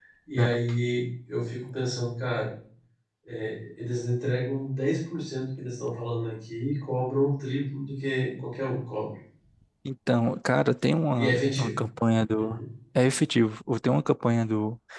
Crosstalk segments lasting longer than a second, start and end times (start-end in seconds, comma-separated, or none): none